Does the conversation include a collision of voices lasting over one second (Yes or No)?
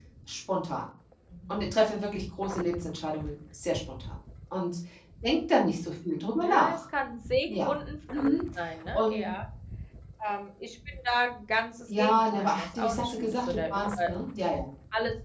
Yes